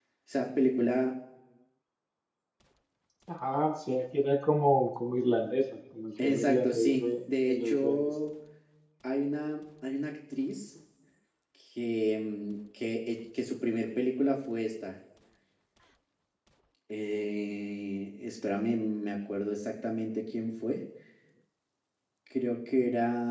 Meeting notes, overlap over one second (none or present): present